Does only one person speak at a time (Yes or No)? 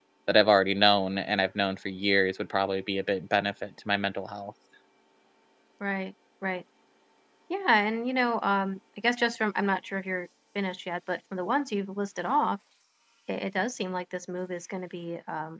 Yes